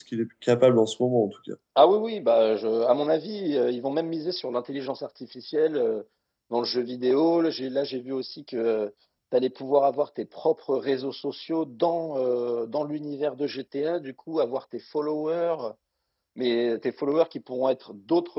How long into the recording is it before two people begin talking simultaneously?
none

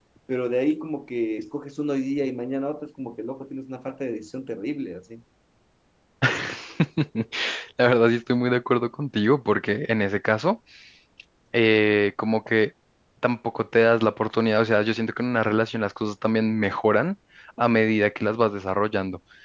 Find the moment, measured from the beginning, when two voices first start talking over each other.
none

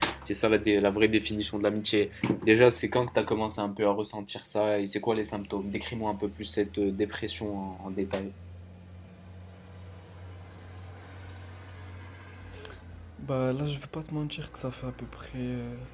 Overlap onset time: none

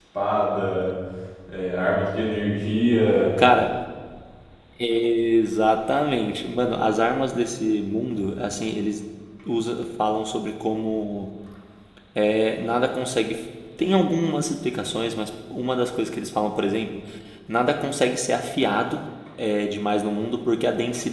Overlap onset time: none

